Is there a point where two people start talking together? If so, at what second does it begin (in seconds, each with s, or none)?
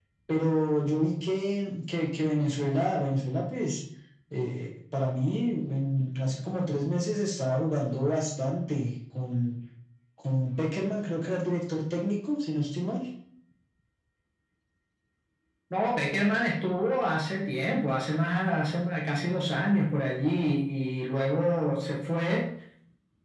none